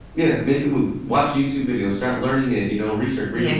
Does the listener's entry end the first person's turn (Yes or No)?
No